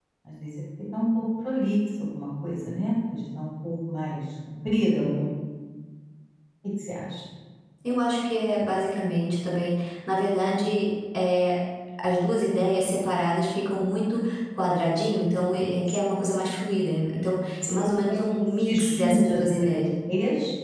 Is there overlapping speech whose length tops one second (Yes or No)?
Yes